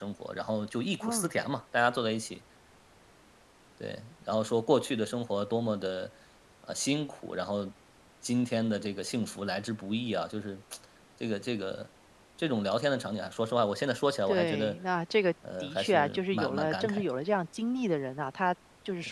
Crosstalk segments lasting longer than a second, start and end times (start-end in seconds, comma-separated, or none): 15.6-17.1